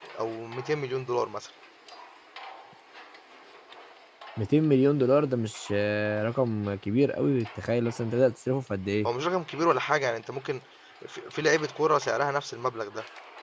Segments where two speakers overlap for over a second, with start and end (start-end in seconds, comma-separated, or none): none